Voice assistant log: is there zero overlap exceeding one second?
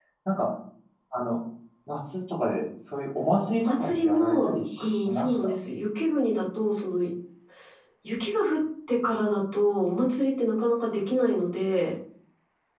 No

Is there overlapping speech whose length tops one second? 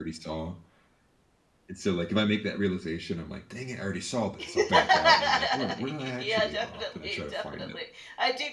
Yes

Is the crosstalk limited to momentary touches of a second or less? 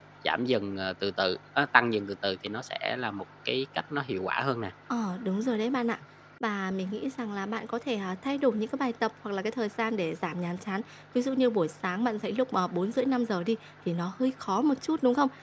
Yes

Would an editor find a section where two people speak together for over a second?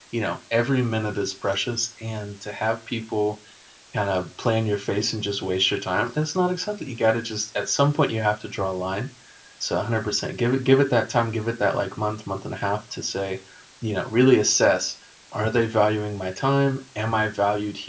No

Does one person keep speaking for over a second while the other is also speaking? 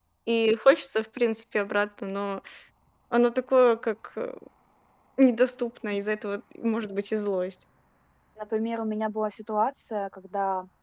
No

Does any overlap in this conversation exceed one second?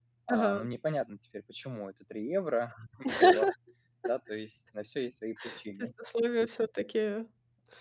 No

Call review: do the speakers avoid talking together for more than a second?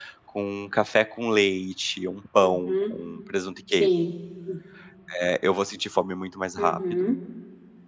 Yes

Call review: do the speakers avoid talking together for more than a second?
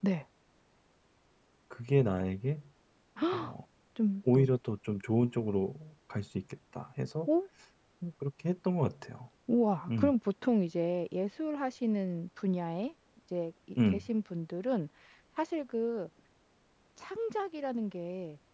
Yes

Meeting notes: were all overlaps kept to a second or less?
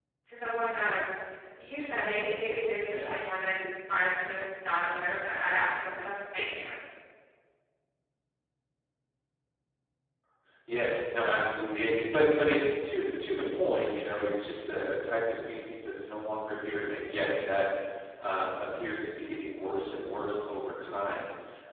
Yes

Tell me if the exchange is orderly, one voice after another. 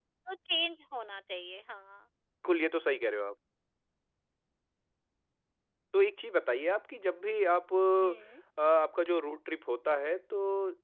Yes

